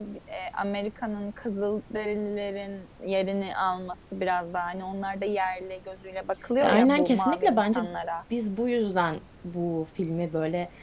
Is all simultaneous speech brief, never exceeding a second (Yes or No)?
No